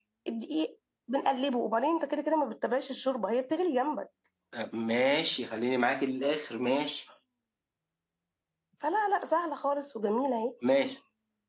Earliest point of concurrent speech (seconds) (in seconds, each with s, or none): none